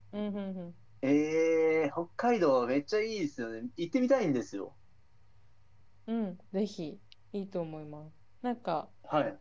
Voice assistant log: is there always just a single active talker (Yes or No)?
Yes